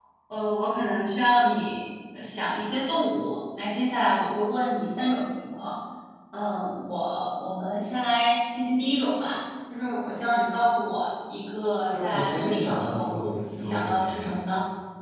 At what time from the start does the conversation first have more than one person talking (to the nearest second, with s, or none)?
12 s